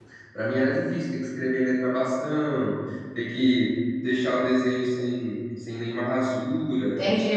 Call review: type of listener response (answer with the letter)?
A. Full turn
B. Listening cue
A